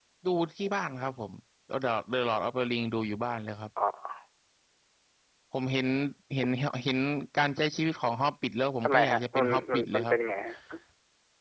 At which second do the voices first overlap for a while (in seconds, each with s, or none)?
8.8 s